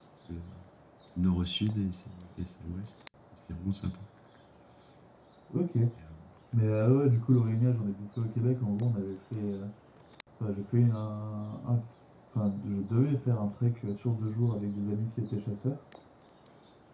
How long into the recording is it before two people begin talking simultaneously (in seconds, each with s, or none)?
none